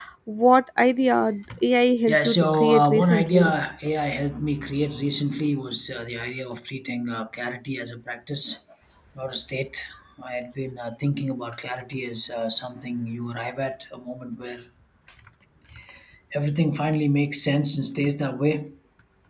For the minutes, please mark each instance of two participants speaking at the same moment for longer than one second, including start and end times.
2.1-3.5

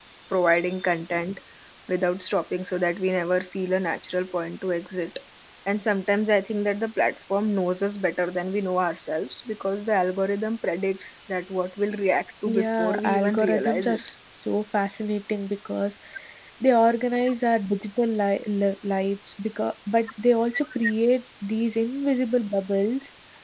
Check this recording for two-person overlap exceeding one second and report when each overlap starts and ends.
12.6-14.0

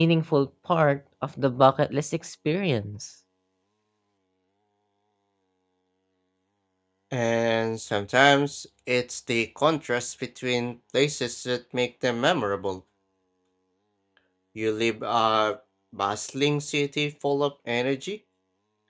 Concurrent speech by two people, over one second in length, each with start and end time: none

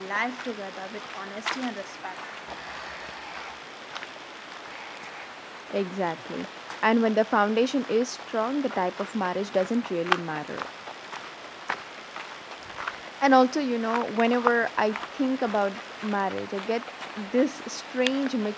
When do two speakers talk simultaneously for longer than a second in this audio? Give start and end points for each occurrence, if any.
none

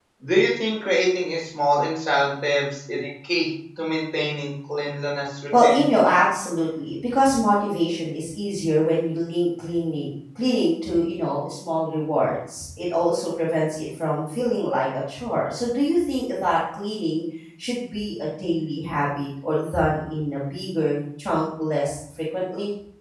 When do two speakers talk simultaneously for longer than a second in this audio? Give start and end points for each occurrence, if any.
none

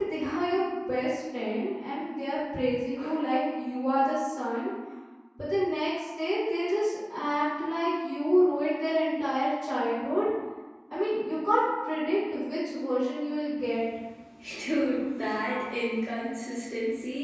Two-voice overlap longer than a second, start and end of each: none

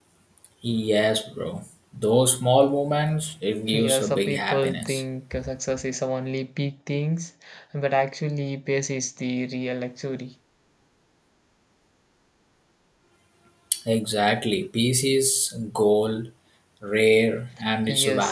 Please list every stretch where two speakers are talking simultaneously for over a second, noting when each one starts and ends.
3.7-5.0

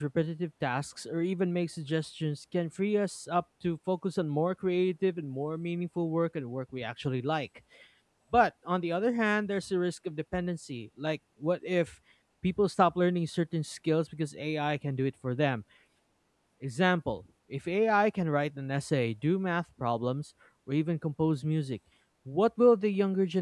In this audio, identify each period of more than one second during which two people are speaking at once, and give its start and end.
none

